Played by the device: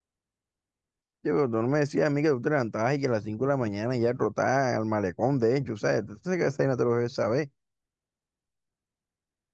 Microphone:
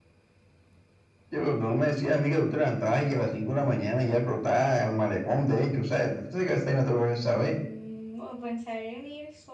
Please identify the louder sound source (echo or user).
echo